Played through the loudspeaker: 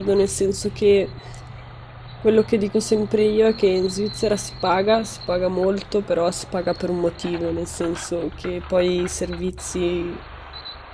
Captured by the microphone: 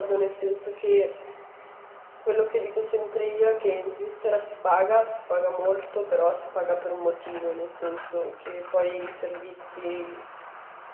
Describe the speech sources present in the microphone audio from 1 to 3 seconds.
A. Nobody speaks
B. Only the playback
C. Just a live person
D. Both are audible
B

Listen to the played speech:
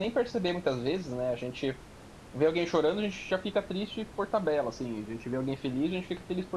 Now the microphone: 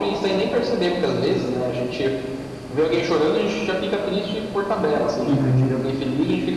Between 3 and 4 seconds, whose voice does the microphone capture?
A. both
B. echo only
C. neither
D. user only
B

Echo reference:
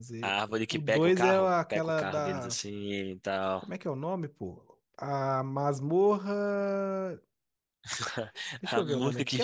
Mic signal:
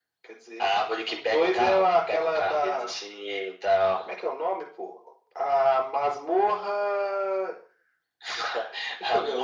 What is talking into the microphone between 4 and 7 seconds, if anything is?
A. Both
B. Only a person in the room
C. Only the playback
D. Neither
C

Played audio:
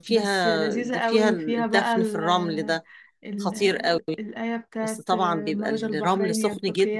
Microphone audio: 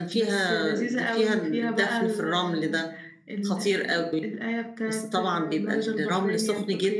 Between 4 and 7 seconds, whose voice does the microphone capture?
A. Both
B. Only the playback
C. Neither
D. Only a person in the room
B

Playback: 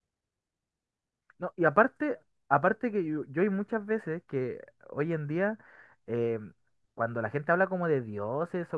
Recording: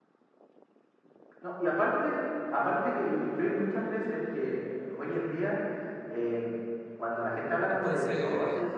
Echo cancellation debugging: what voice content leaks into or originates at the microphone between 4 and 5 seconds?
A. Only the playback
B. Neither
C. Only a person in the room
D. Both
A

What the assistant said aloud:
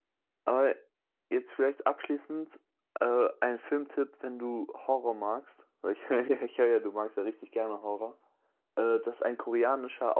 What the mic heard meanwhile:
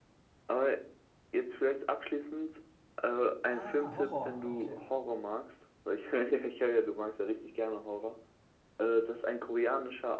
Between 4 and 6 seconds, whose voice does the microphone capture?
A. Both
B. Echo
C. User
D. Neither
A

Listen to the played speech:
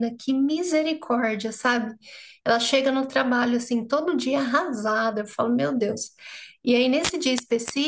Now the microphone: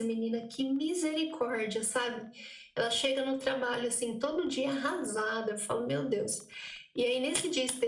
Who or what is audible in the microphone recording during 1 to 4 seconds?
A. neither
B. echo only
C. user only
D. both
B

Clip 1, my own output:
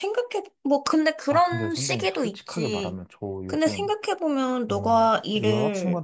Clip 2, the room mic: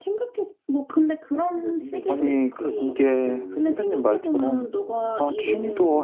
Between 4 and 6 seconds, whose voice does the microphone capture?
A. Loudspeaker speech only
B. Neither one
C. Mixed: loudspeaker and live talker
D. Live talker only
C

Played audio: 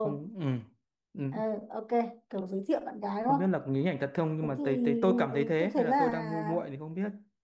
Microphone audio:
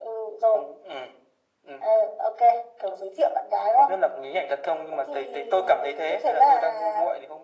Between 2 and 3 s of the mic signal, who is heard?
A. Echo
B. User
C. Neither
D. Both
A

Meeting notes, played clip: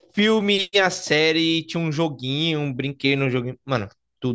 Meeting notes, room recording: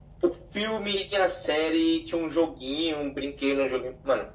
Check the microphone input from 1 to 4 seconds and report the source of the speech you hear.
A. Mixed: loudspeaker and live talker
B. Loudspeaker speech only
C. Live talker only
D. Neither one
B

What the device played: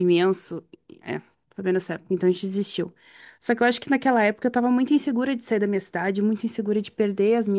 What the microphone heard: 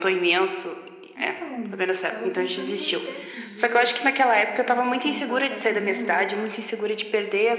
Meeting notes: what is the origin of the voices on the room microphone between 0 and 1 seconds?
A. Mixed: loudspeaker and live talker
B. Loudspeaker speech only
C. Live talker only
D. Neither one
B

